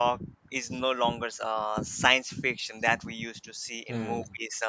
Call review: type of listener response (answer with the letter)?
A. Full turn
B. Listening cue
B